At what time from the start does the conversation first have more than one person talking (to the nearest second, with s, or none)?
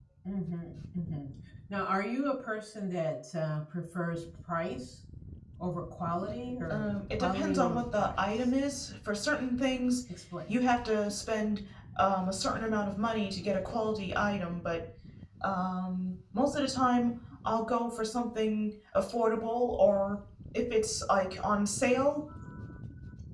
7 s